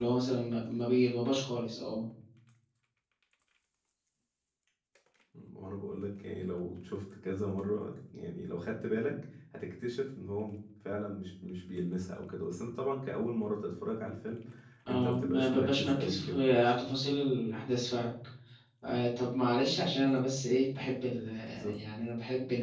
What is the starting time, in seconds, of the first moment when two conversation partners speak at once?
15 s

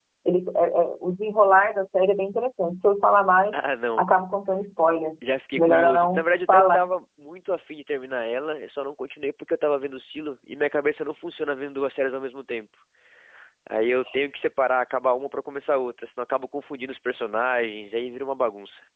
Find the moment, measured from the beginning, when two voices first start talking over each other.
6 s

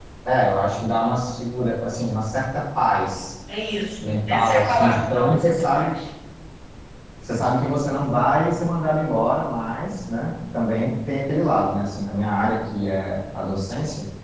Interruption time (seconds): 4 s

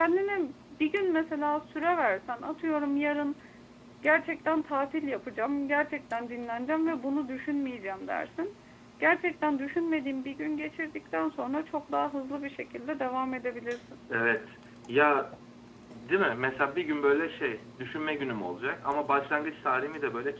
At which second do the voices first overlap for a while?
none

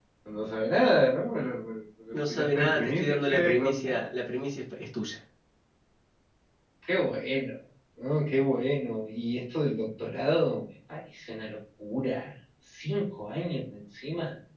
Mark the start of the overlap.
2 s

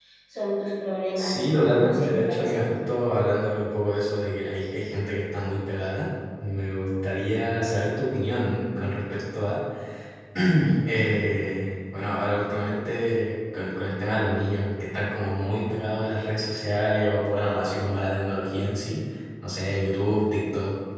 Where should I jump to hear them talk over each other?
1 s

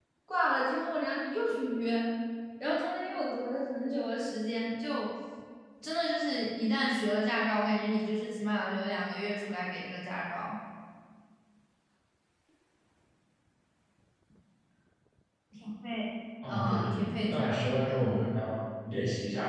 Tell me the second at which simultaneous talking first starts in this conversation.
16 s

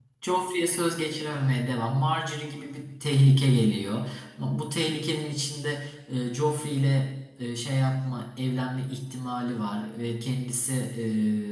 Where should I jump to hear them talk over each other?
none

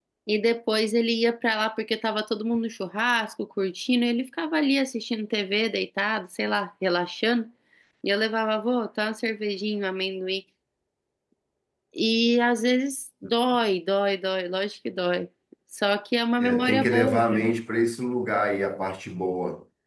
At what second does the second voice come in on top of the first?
16 s

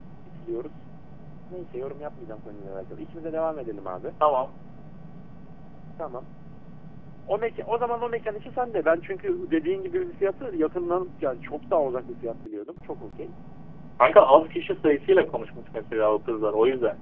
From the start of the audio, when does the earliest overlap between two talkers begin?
none

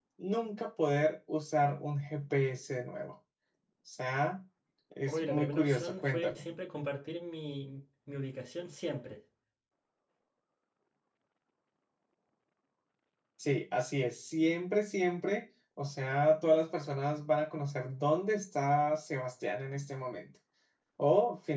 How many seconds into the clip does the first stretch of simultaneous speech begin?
5 s

